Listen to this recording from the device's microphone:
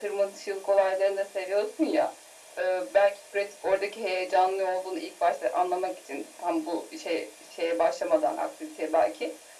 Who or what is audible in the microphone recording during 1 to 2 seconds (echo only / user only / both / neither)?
echo only